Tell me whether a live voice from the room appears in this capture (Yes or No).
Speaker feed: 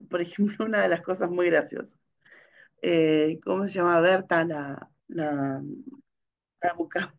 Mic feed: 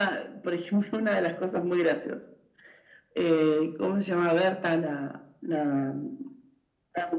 No